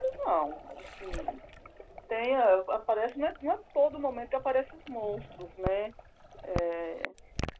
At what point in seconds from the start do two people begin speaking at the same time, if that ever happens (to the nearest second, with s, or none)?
none